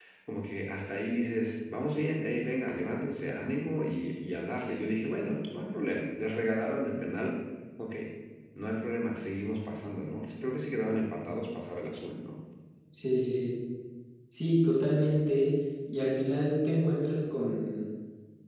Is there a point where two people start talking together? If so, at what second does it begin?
none

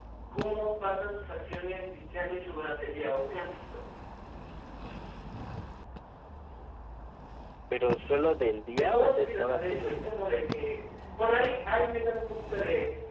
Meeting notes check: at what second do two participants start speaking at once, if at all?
8.7 s

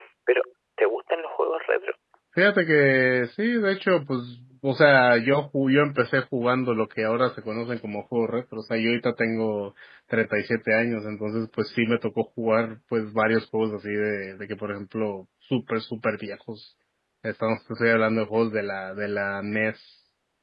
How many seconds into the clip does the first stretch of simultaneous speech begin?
none

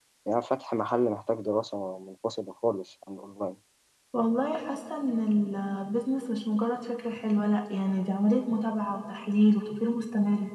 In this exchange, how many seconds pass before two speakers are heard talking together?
none

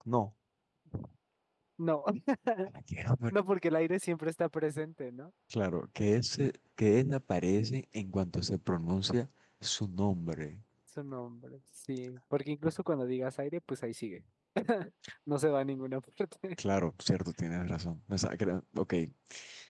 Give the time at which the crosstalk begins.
none

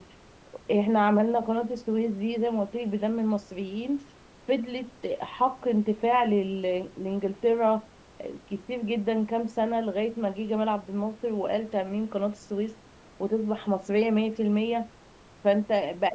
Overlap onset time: none

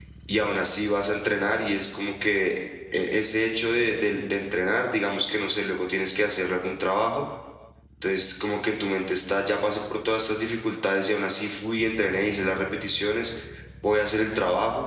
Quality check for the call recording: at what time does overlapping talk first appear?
none

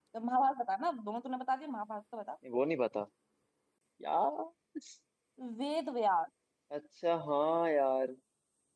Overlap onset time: none

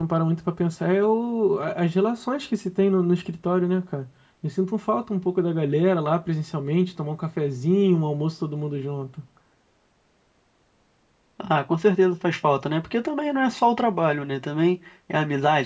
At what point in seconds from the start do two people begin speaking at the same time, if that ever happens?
none

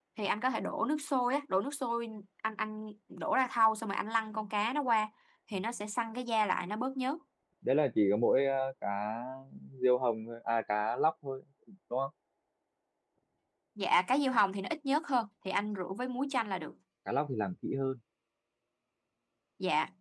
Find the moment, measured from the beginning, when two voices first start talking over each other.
none

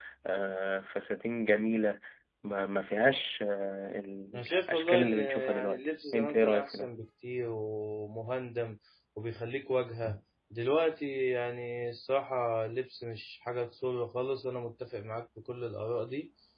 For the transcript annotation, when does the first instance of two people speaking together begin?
4.3 s

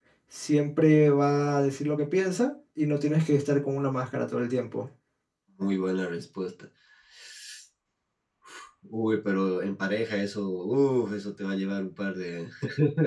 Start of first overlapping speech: none

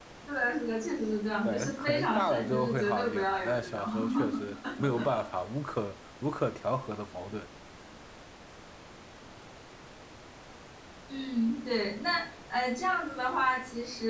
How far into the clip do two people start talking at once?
1.4 s

